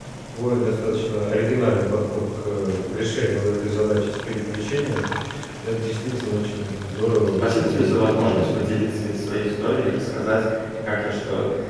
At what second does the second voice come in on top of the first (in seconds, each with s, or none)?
7.4 s